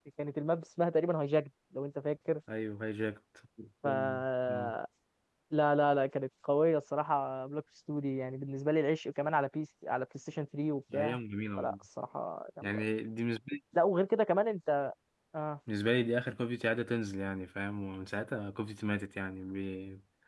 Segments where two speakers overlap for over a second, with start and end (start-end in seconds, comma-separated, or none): none